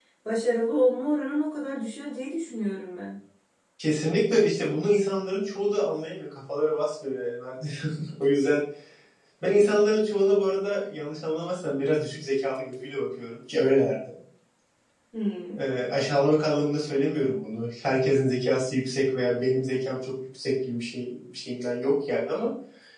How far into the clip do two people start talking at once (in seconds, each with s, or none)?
none